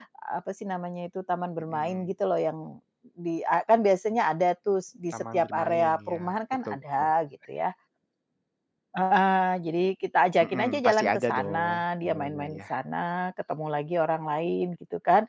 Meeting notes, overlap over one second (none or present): present